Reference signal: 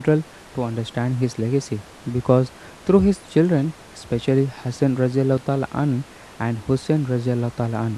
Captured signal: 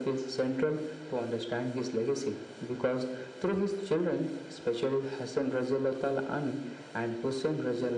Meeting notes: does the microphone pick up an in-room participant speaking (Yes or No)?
No